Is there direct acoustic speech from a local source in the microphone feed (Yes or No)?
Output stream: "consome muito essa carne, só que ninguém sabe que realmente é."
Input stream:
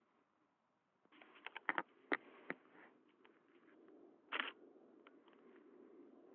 No